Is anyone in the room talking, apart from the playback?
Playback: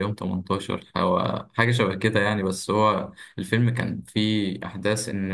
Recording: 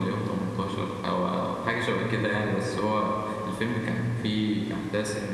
No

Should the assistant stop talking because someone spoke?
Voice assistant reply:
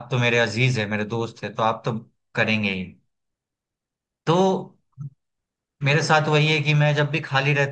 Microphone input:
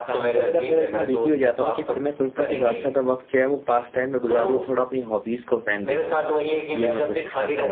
Yes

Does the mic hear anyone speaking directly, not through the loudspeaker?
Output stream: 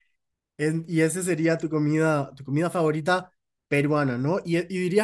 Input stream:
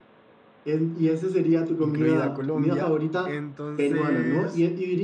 Yes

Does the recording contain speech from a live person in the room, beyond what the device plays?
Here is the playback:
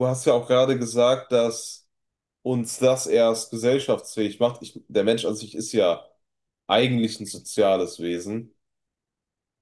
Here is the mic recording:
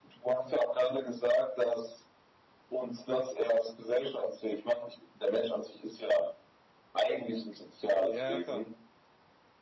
Yes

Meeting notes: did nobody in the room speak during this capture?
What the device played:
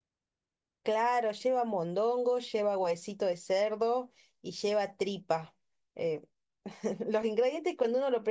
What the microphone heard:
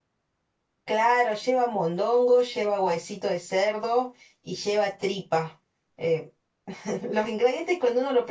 Yes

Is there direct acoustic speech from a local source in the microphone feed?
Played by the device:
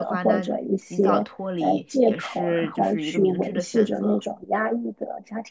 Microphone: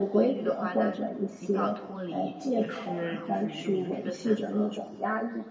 No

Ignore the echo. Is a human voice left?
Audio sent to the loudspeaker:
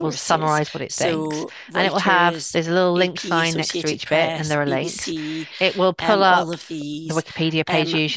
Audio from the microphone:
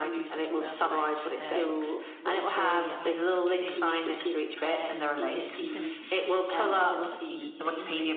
Yes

